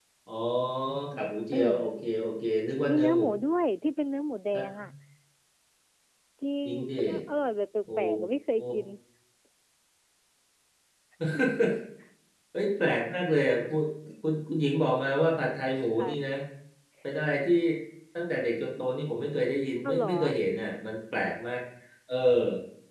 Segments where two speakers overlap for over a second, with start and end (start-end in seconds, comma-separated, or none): none